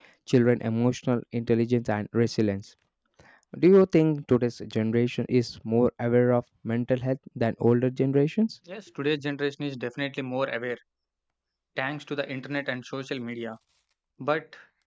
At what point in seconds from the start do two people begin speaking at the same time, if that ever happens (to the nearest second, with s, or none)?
none